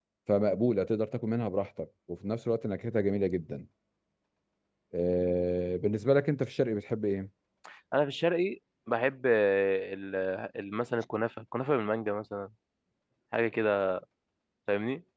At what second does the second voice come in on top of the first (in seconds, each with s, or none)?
none